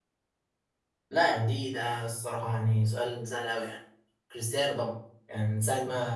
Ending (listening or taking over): listening